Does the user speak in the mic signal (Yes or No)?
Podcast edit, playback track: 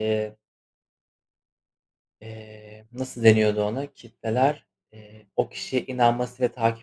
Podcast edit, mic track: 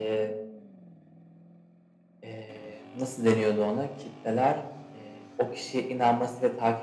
No